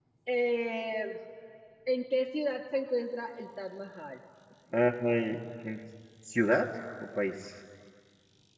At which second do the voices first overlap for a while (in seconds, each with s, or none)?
none